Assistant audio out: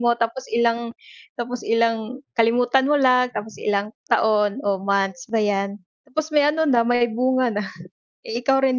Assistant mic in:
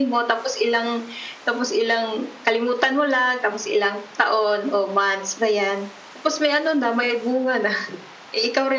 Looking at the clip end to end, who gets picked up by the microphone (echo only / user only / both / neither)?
echo only